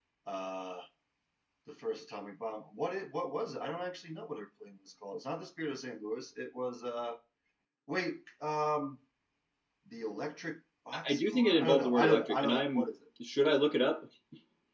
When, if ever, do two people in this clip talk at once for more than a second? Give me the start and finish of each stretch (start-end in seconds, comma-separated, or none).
11.1-12.9